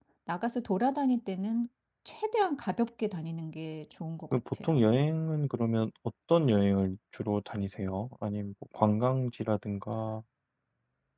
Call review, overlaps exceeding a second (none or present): none